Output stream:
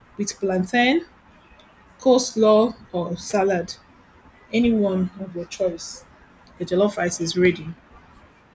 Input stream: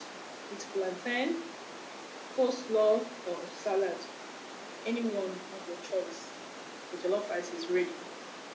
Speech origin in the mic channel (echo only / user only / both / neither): echo only